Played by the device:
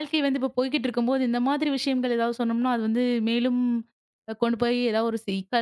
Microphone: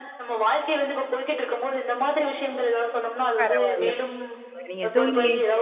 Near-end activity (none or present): present